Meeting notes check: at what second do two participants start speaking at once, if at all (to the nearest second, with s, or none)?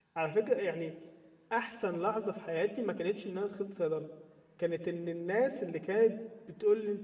none